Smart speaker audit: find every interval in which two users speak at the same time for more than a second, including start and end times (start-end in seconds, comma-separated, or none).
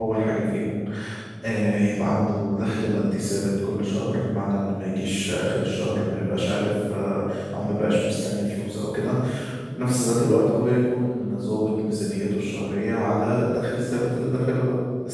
none